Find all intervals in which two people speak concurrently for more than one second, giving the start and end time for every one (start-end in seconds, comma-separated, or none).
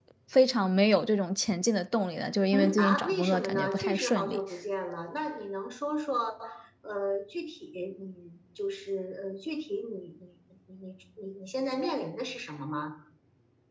2.5-4.4